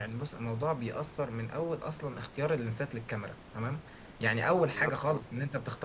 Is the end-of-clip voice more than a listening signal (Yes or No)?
No